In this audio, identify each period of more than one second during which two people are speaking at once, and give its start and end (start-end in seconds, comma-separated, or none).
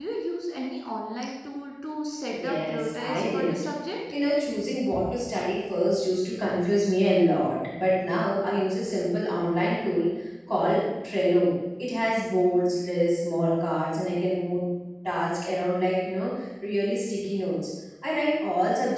2.3-3.5